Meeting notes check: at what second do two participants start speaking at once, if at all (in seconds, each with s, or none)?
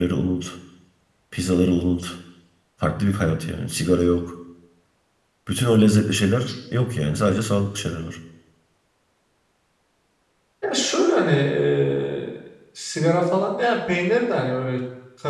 none